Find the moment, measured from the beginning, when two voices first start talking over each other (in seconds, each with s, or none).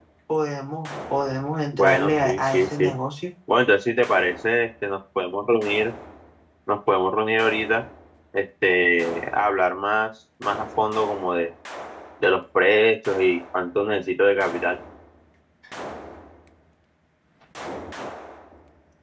1.7 s